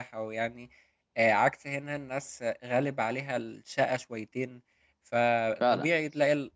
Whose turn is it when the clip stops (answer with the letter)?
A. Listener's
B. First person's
B